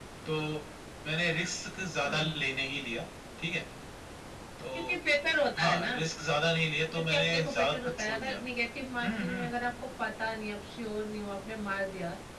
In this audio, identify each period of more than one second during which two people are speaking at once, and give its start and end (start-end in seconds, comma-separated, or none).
7.1-8.4